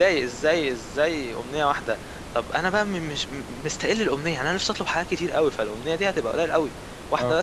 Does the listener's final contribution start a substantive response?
No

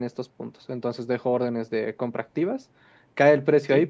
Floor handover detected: No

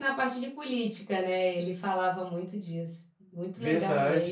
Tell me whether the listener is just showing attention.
No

